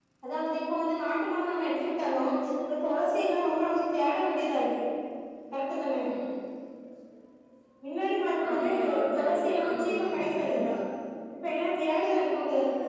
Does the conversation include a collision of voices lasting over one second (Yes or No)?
Yes